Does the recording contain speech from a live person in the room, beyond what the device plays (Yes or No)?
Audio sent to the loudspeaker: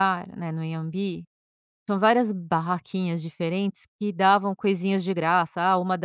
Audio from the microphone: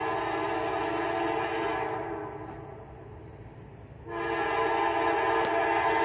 No